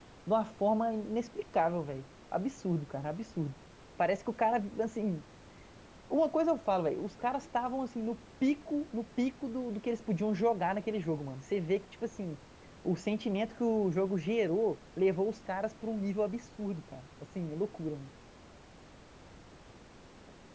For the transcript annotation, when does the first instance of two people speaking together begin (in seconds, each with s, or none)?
none